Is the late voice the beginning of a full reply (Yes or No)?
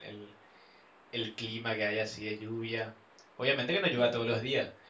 No